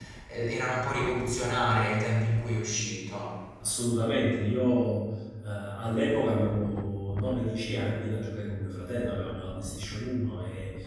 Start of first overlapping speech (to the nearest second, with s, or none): none